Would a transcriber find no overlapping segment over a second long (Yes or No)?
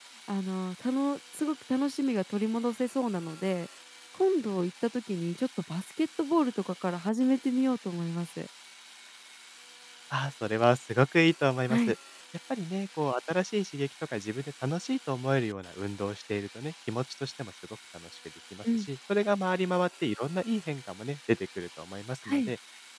Yes